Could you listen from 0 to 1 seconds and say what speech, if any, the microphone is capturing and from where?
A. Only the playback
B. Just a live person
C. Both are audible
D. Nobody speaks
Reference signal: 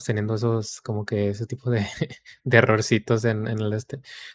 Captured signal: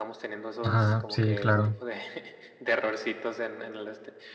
C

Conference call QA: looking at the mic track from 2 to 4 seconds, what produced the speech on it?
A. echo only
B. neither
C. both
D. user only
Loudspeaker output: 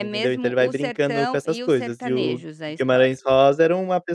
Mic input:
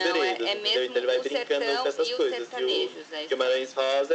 A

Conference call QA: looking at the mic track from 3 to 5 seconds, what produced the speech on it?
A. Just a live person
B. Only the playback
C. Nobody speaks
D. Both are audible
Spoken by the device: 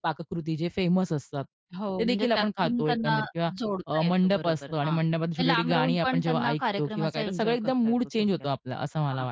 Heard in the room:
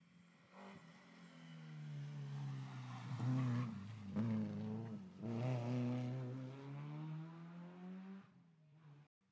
C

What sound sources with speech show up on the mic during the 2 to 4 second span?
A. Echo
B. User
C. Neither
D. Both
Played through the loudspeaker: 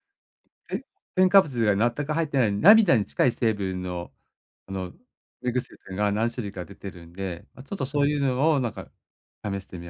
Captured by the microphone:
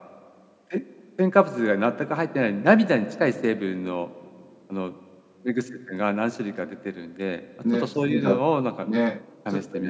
A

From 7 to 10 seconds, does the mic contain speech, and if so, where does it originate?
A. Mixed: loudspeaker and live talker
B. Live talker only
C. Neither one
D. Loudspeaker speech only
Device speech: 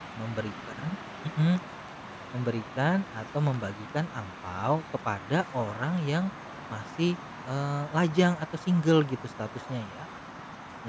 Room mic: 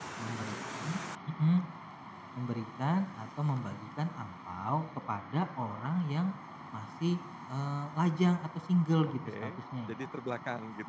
A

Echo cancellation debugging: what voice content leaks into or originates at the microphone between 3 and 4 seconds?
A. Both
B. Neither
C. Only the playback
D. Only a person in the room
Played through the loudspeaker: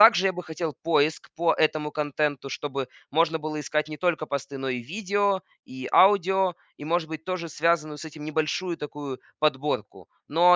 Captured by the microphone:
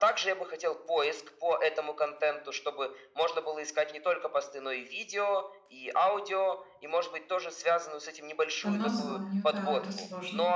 C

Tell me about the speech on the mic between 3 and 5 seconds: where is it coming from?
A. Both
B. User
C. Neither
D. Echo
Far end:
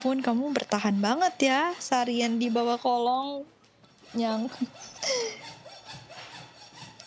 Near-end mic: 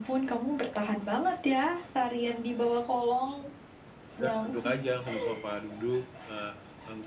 A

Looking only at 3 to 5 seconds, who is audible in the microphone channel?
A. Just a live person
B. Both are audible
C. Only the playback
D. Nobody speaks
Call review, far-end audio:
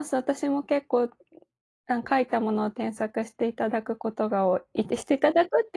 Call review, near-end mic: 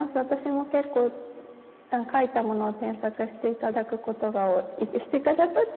C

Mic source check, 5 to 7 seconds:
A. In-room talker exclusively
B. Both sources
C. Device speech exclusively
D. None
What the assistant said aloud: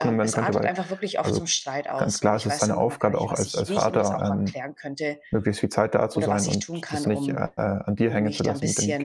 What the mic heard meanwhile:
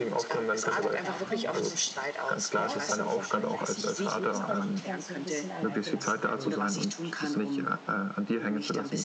B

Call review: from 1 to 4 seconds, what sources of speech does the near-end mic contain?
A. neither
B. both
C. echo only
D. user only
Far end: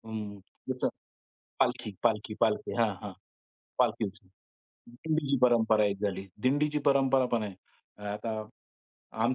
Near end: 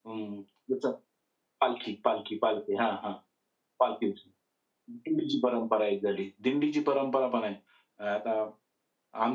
C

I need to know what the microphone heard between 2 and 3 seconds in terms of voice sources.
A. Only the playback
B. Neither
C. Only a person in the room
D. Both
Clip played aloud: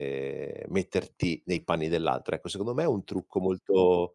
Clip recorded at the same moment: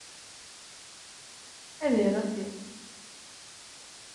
C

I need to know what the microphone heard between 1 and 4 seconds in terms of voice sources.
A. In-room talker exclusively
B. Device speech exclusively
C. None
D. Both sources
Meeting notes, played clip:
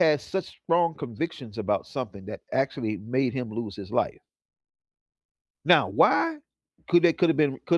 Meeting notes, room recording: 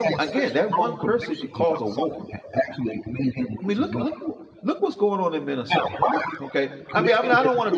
D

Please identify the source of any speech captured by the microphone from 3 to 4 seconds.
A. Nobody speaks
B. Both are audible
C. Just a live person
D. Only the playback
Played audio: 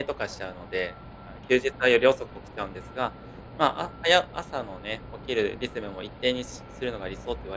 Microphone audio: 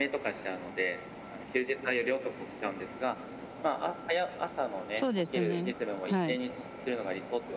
D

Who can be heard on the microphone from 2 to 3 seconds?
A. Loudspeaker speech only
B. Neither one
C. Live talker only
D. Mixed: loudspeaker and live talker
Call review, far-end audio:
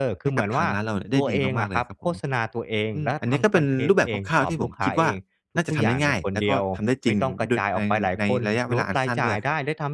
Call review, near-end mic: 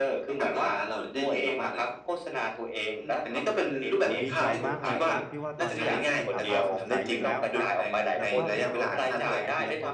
A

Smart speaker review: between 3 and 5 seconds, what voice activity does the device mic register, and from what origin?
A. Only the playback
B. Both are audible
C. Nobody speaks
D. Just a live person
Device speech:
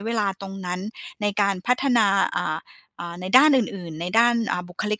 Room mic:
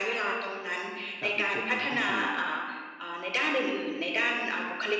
A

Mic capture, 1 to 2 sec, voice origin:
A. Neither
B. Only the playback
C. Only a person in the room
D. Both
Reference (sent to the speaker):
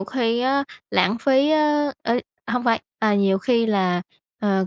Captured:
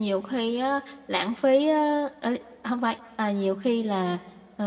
B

